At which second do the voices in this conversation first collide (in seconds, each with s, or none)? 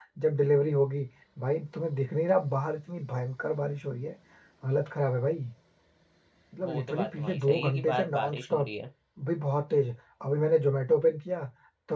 6.6 s